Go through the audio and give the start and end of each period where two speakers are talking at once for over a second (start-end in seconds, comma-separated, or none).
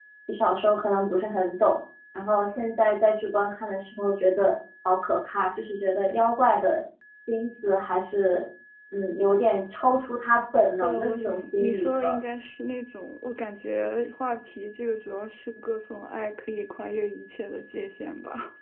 10.8-12.2